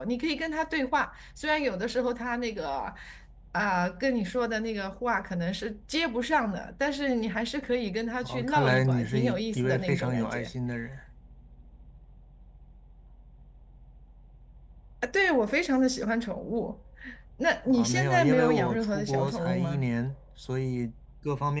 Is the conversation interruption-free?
No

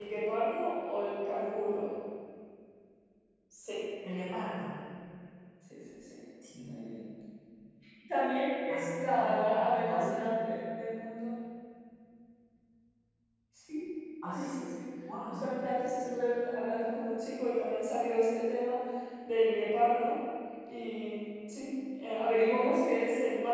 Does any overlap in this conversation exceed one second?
Yes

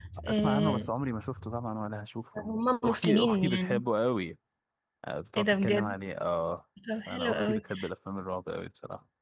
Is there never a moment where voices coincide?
No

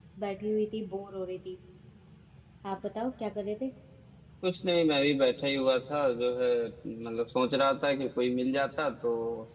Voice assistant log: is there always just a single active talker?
Yes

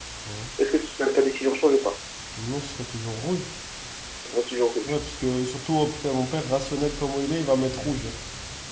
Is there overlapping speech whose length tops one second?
No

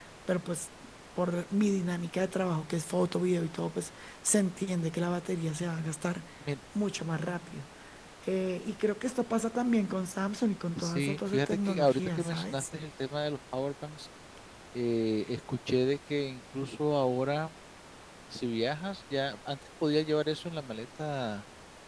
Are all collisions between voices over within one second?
No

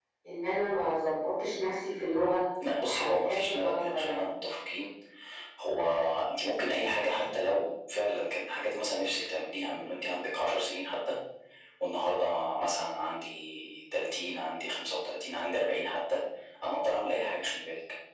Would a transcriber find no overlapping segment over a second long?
No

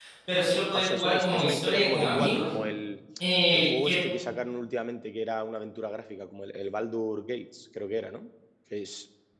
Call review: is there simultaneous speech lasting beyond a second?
Yes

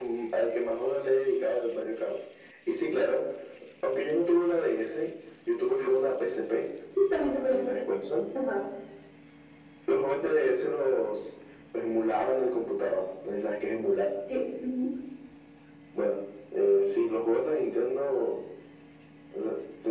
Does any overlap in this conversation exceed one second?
No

